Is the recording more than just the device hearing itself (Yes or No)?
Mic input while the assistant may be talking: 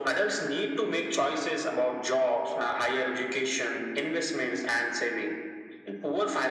No